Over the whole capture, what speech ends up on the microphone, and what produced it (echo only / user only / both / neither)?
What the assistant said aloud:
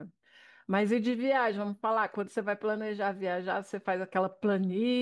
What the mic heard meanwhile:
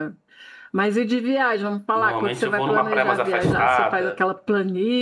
both